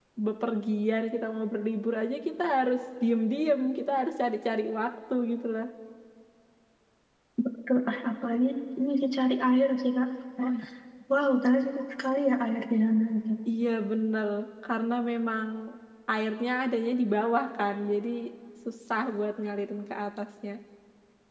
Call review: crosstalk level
none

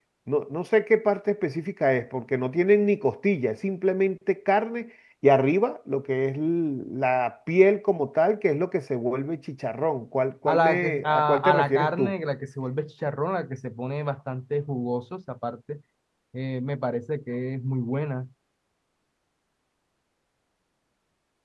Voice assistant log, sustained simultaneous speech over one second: present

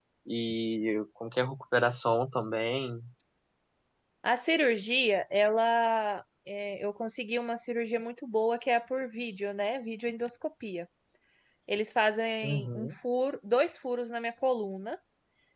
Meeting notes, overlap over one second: none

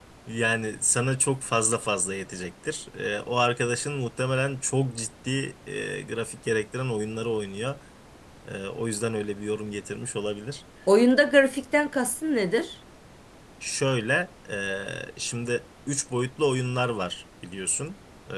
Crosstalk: none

